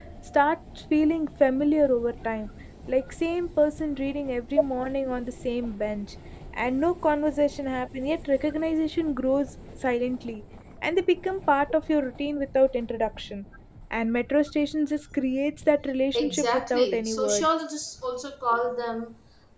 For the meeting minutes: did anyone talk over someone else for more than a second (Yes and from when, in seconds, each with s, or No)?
Yes, from 16.1 s